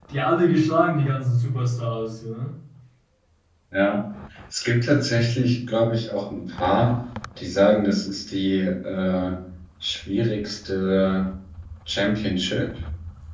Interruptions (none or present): none